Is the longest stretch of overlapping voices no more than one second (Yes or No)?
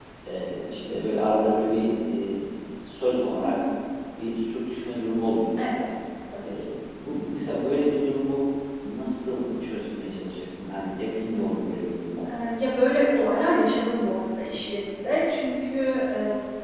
Yes